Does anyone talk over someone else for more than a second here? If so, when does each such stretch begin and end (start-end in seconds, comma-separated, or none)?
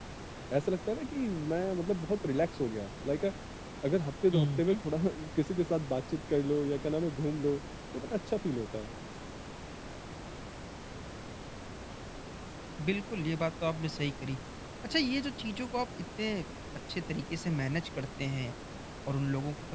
none